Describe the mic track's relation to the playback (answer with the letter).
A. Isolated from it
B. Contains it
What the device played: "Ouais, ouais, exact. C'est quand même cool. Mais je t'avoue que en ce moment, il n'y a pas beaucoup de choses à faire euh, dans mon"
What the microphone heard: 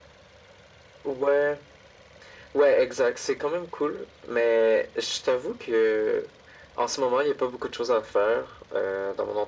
B